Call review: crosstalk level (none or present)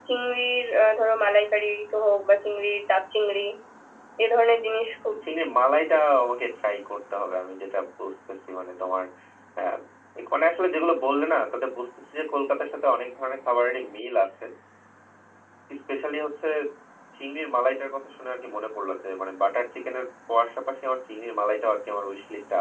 none